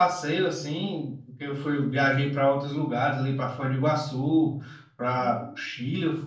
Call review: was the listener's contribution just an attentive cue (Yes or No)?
Yes